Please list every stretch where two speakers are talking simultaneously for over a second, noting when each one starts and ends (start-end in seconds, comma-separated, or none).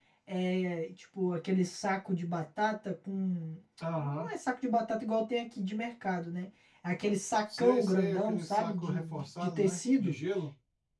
7.6-10.1